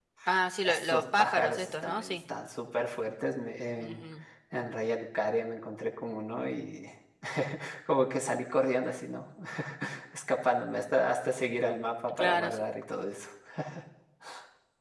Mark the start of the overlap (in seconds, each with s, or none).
0.6 s